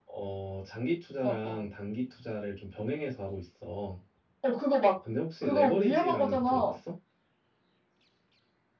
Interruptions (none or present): present